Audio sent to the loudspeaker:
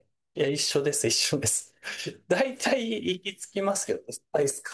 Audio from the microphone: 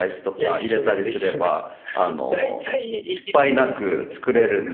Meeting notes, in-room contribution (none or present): present